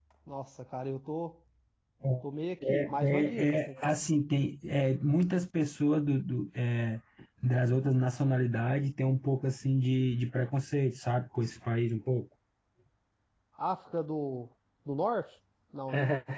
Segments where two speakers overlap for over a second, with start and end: 2.7-3.9

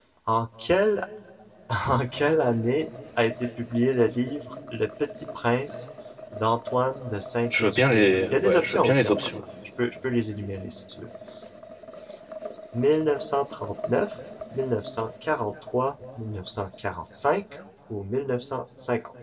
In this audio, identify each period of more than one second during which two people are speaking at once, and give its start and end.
7.6-9.4

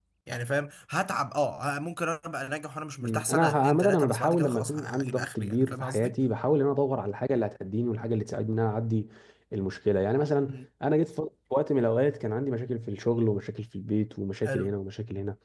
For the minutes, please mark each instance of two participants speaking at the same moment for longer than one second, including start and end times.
3.0-6.1

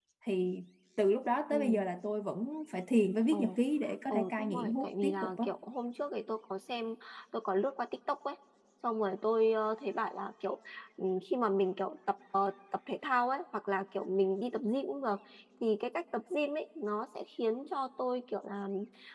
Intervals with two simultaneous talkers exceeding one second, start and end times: 4.1-5.4

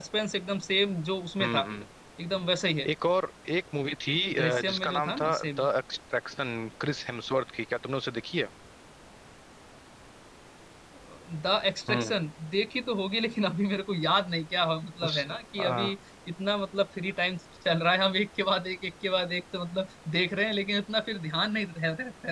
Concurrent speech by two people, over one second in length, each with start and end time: 4.4-5.7

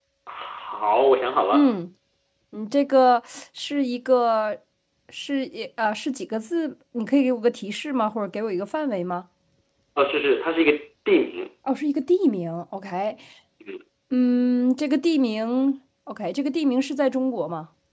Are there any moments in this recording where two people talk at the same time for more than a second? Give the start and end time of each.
none

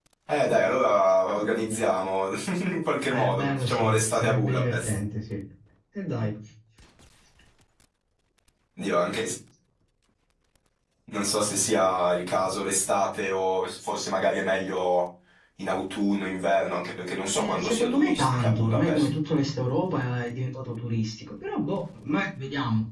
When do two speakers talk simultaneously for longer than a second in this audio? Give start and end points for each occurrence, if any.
3.1-5.0, 17.4-19.1

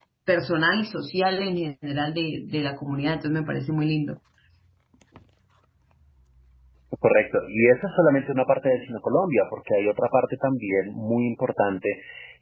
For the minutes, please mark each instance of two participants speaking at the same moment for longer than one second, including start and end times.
none

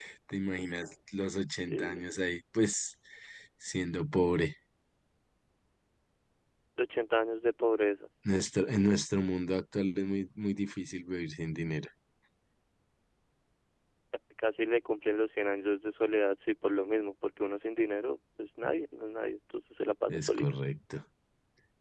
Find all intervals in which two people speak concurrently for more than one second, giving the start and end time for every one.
none

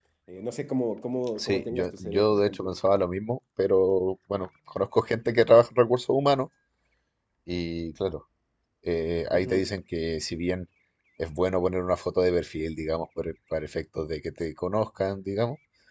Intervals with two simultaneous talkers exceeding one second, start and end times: 1.4-2.8

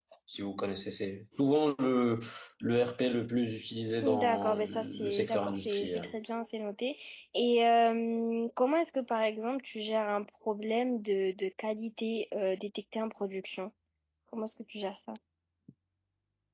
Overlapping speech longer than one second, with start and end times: 4.0-6.1

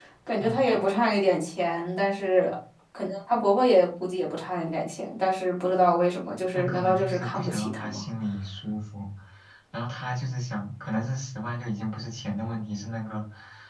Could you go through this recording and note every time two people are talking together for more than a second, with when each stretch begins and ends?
6.5-8.0

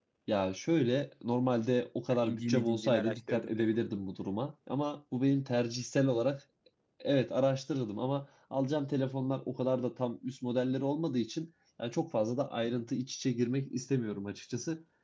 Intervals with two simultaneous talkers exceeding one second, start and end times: 2.1-3.5

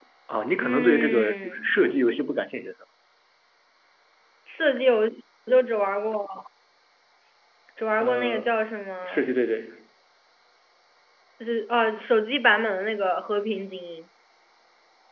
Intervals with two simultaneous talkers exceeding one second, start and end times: 0.6-1.8

